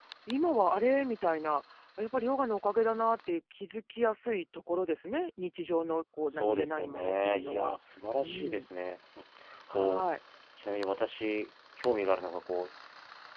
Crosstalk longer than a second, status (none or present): present